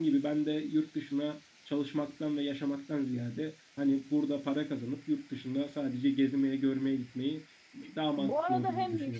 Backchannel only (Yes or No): No